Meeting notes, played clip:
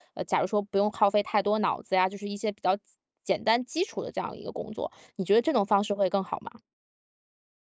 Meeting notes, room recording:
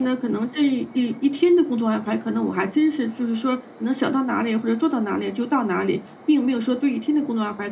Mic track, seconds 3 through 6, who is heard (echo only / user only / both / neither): user only